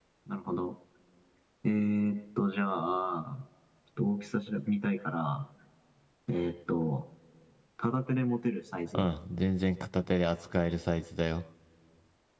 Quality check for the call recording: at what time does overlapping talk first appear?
none

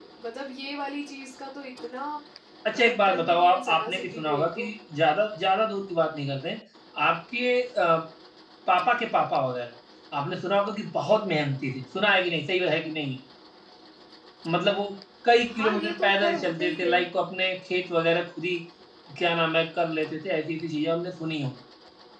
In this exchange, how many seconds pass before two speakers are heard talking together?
3 s

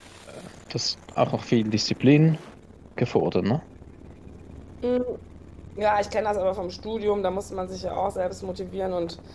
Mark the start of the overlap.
none

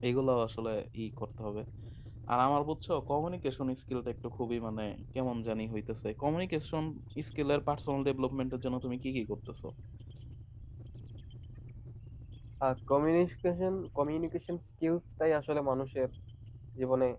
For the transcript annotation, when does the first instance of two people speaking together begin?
none

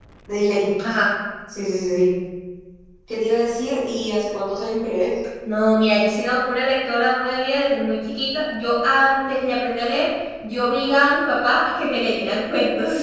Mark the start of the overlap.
none

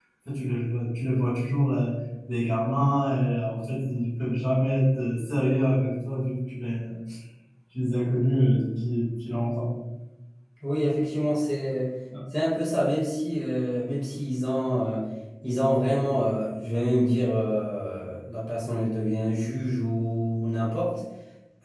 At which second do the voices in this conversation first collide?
none

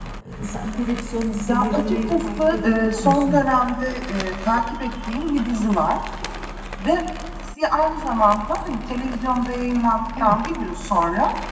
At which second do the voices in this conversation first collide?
1 s

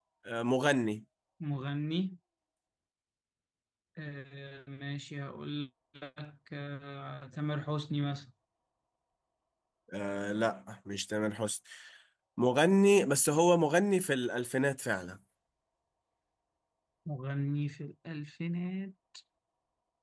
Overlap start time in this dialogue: none

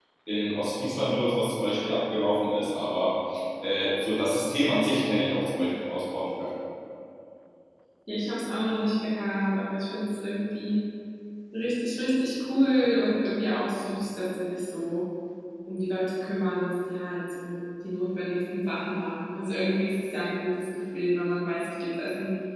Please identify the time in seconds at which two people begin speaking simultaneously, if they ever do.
none

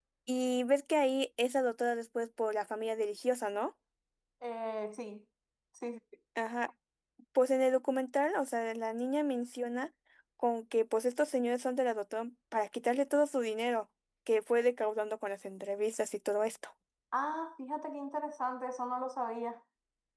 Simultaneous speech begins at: none

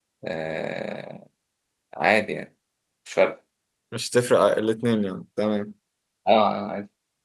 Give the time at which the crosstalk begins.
none

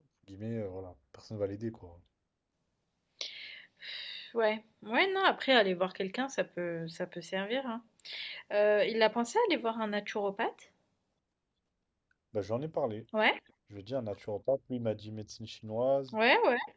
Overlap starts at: none

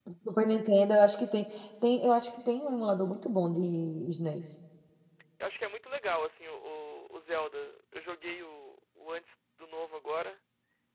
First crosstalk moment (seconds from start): none

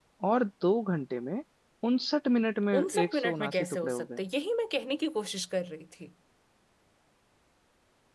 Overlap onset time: 3 s

